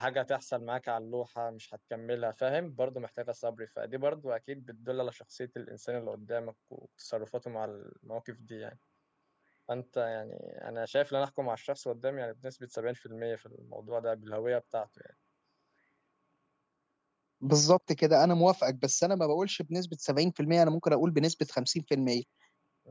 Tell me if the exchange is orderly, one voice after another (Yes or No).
Yes